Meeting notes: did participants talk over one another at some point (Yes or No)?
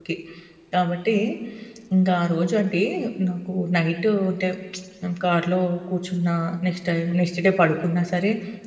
No